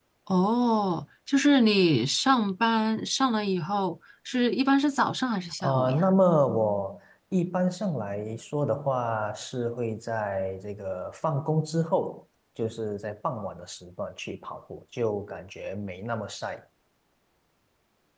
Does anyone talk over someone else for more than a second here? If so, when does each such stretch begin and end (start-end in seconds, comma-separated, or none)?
none